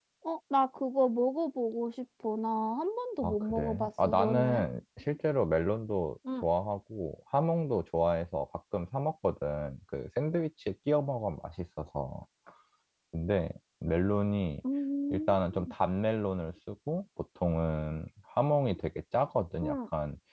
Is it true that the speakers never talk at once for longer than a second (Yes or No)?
No